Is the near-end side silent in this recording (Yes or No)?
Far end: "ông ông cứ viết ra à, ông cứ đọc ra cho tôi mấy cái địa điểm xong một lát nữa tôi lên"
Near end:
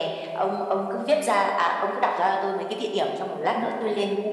Yes